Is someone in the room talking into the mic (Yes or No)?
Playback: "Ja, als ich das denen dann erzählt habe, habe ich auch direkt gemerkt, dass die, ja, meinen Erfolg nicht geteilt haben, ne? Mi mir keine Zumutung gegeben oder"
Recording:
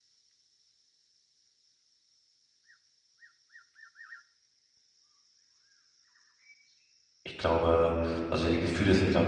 Yes